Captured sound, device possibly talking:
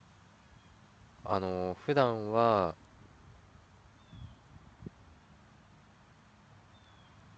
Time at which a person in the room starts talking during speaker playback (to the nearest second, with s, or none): 1 s